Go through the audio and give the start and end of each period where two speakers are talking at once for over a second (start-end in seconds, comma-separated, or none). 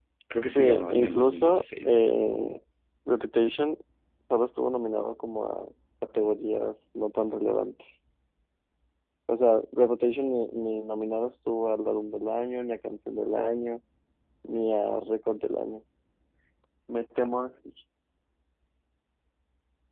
0.6-1.9